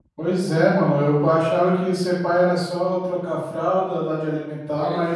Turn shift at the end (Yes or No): No